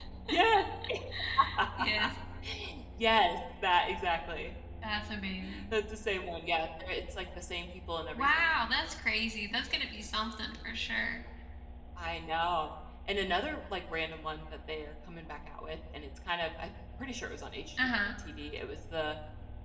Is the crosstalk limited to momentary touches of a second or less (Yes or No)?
Yes